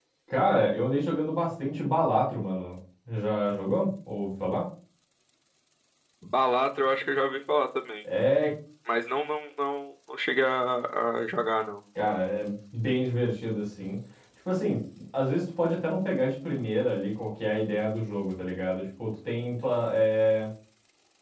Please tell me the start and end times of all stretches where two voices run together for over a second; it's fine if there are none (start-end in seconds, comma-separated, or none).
none